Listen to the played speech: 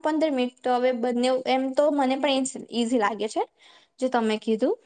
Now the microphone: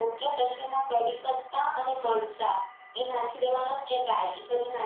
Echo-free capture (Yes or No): Yes